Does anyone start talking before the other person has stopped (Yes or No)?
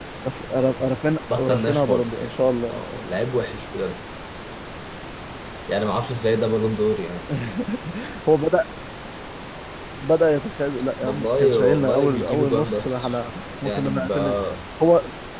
Yes